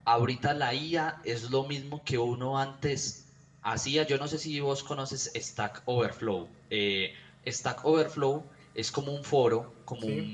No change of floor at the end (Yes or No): Yes